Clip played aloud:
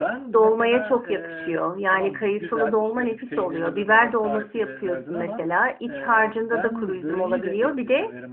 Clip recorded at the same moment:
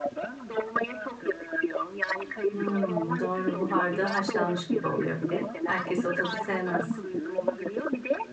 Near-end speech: present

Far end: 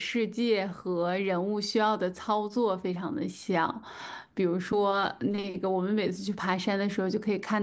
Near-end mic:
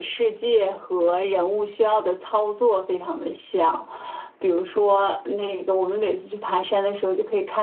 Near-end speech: none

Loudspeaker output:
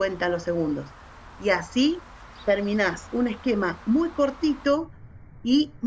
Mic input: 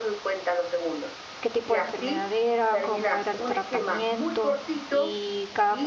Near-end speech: present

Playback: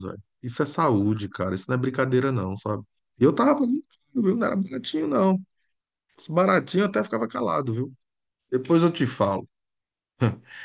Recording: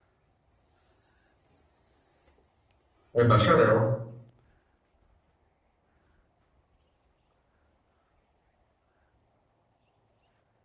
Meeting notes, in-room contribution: present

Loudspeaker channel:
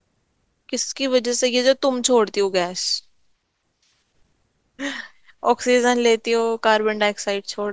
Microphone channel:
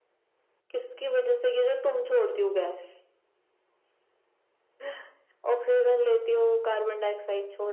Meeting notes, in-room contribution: none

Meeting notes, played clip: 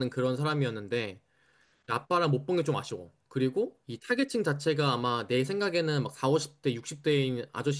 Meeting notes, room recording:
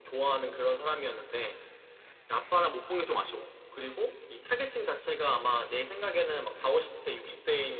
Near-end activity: none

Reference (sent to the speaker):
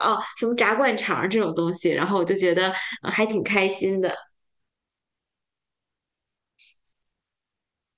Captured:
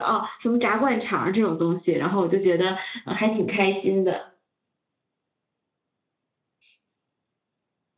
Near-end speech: none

